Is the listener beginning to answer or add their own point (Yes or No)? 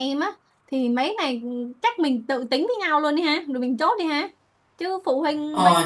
Yes